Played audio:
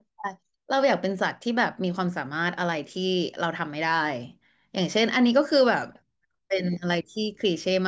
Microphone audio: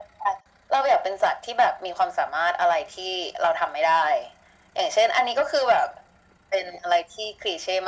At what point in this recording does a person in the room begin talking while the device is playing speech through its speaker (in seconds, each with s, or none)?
none